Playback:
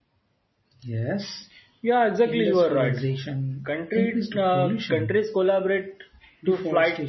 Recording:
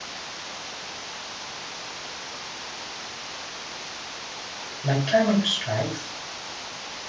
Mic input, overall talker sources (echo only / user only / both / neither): user only